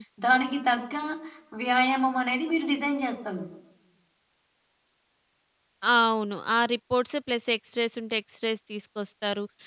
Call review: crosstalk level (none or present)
none